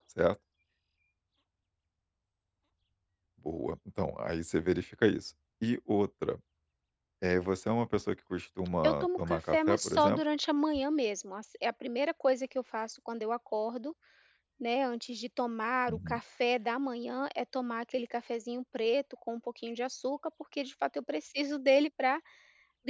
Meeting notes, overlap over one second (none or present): present